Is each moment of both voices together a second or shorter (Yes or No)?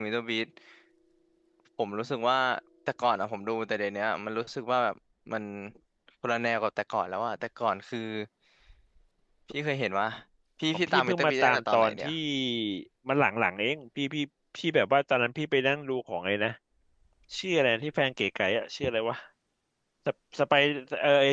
No